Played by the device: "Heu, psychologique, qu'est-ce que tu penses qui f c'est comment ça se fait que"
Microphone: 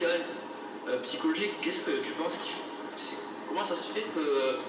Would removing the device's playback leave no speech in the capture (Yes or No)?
Yes